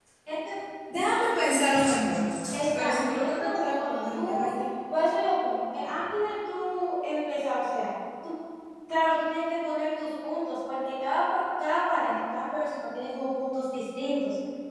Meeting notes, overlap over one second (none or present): present